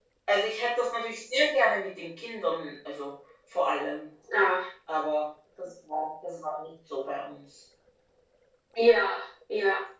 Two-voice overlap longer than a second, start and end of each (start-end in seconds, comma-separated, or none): none